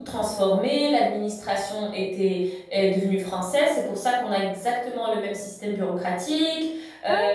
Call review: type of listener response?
listening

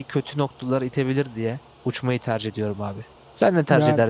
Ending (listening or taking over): taking over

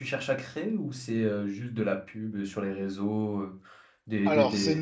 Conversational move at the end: taking over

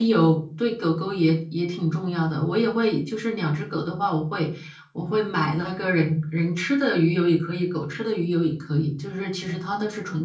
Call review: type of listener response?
listening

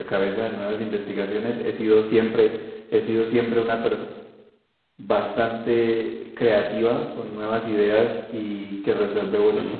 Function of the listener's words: listening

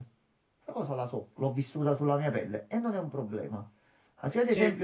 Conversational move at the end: listening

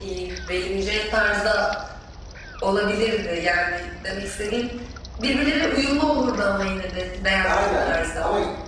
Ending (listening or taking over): taking over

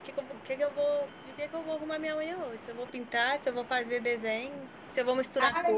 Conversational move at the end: taking over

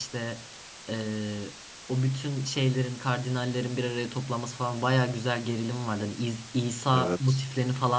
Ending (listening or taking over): listening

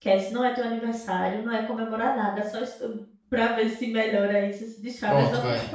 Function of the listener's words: listening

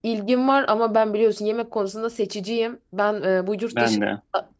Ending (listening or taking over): listening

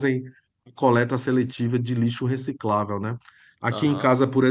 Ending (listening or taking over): listening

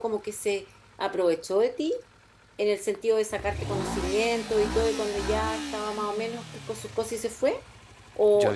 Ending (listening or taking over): taking over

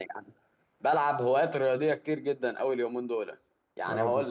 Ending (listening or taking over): listening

